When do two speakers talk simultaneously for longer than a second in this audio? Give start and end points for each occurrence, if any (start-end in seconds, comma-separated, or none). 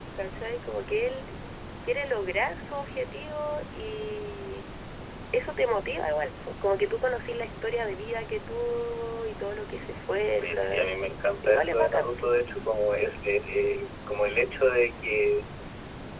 10.4-12.2